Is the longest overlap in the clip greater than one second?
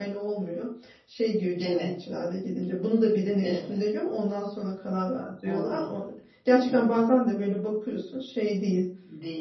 No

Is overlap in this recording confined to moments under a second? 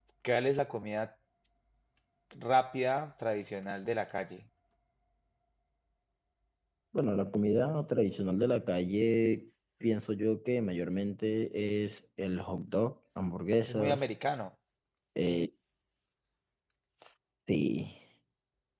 Yes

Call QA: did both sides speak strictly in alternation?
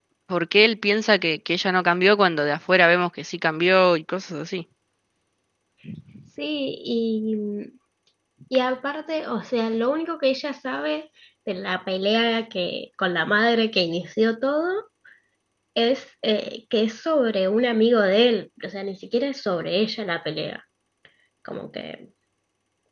Yes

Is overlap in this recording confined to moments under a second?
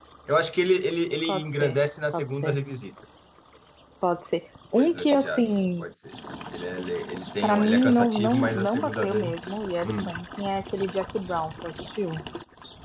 No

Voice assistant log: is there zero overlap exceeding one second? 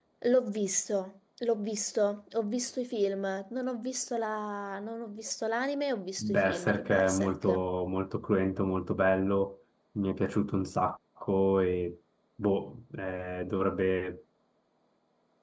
No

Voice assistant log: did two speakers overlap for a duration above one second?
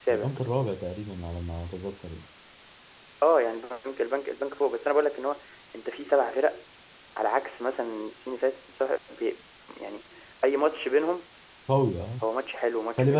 No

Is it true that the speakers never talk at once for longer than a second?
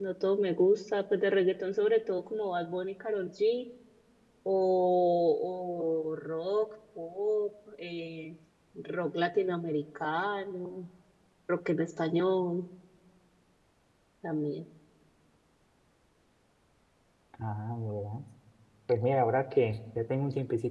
Yes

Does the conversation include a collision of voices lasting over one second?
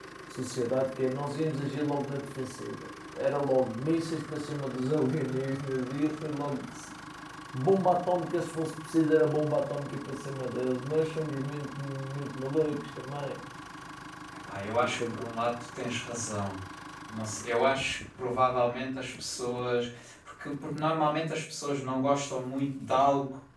No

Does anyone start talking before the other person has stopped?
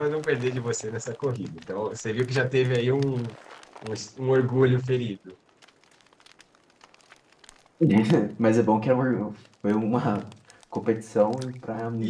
No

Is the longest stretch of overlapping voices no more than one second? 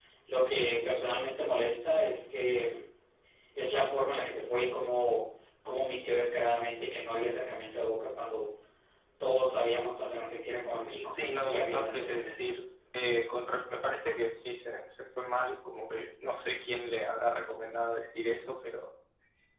No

